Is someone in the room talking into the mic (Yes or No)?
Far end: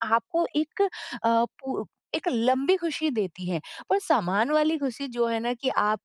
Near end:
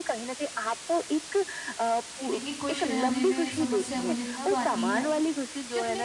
Yes